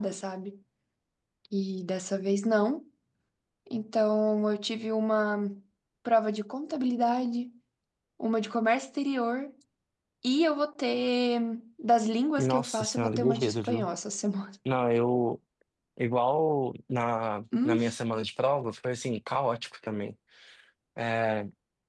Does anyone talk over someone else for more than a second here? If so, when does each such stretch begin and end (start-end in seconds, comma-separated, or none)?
12.4-13.9